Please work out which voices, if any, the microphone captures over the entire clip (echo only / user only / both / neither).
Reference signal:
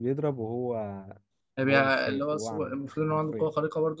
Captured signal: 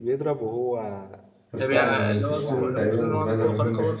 both